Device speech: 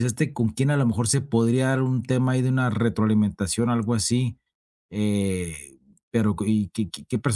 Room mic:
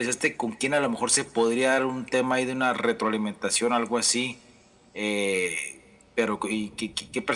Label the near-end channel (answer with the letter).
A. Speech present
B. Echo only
B